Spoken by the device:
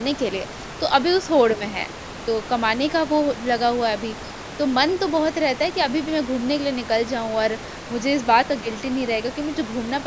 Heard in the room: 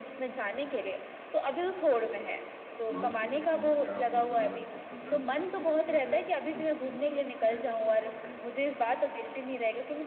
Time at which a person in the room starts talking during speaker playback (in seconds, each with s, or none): 2.9 s